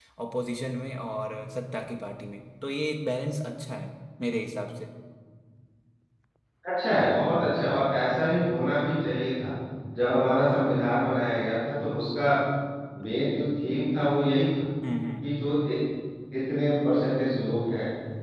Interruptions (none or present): none